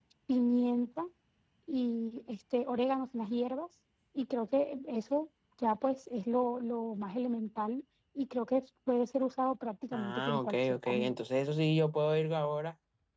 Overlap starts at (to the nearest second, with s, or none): 10 s